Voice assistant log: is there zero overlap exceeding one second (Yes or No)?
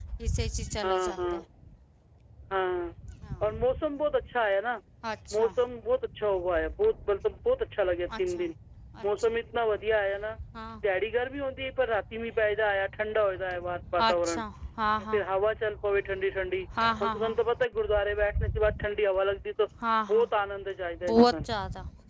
Yes